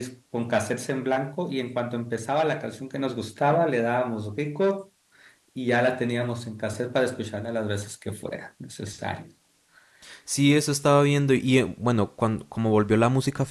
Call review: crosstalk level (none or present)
none